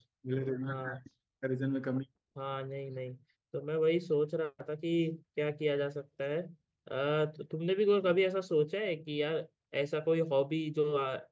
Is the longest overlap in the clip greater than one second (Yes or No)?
No